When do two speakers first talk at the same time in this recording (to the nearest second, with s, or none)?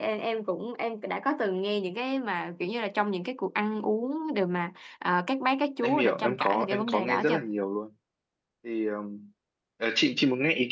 6 s